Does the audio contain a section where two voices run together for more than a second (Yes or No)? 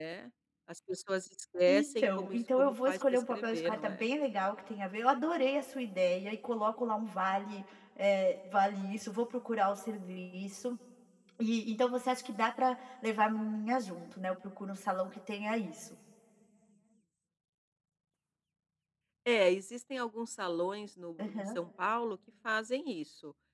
Yes